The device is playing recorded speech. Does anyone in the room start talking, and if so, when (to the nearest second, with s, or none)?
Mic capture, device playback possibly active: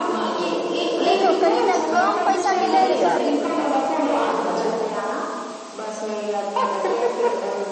1 s